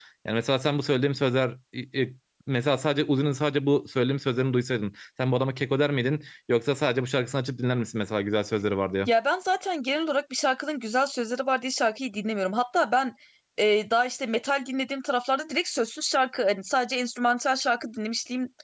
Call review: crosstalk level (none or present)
none